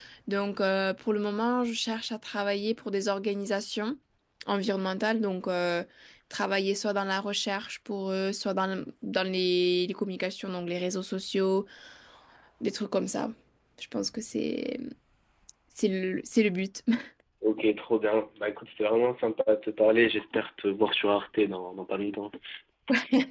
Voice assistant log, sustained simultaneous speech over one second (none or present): none